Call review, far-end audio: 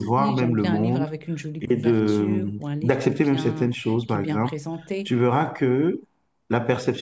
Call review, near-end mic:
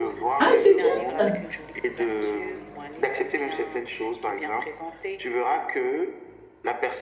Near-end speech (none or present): present